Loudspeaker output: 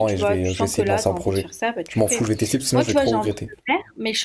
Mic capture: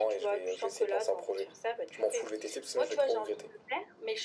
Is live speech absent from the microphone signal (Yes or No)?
Yes